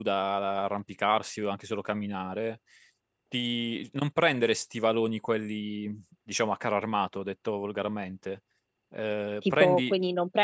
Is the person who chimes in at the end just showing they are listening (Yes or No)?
No